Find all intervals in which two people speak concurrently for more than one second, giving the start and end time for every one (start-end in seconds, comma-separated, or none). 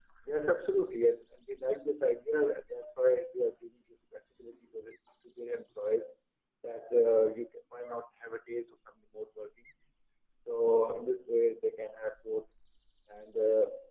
none